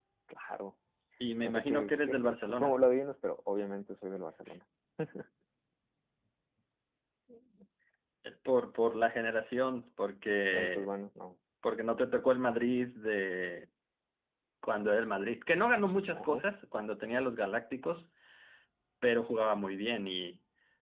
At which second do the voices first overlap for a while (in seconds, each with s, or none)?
1.4 s